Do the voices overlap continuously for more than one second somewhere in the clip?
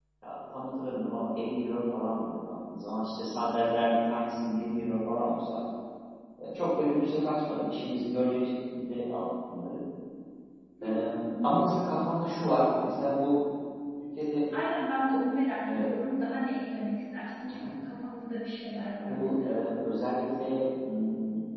No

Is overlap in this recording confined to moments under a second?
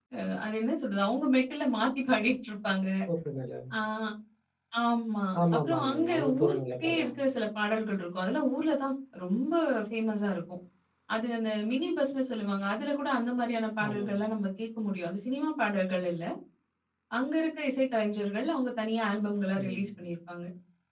No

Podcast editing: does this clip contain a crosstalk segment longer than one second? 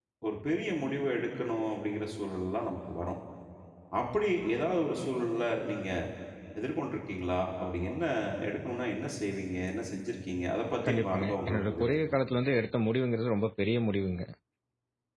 Yes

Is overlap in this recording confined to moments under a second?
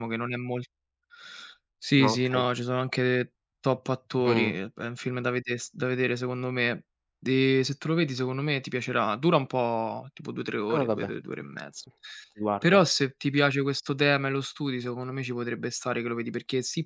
Yes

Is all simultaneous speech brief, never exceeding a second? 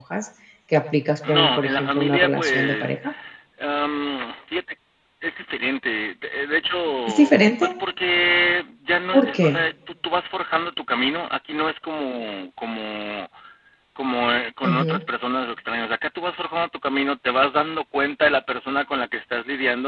No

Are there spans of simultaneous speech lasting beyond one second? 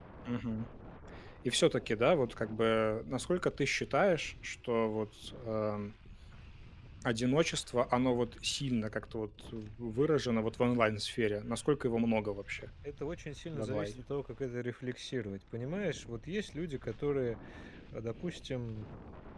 No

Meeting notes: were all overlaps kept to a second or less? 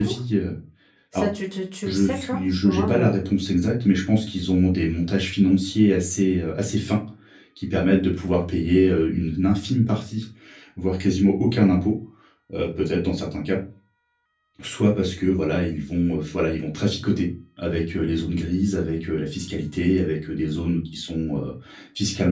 No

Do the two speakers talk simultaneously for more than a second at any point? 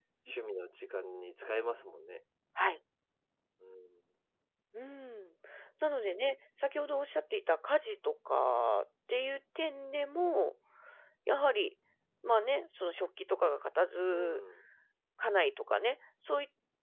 No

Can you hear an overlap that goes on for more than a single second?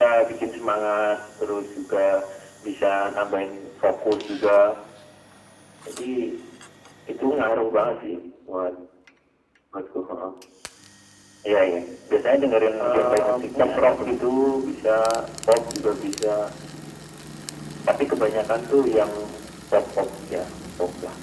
Yes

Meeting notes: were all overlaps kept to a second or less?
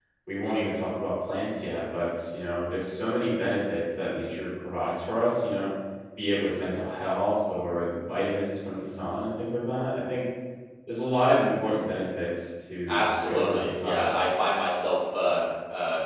No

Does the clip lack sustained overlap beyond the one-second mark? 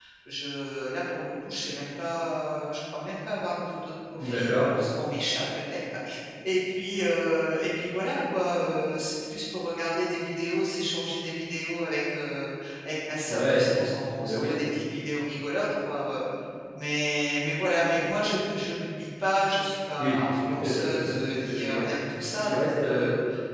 No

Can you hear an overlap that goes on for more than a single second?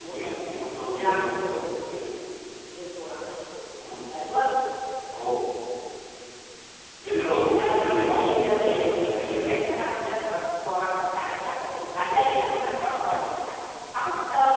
Yes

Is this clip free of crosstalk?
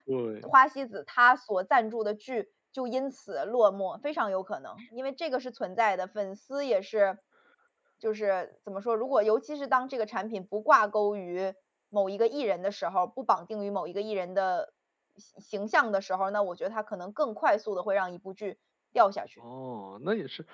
Yes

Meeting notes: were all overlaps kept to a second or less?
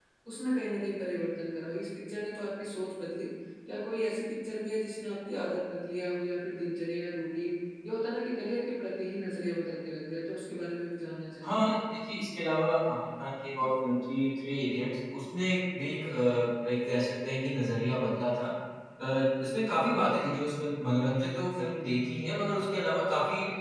Yes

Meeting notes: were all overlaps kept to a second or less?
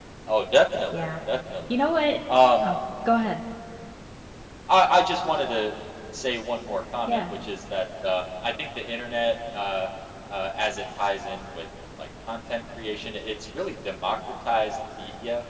Yes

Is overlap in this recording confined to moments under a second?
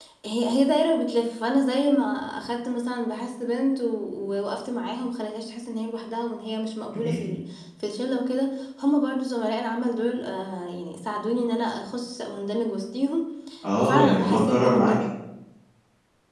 No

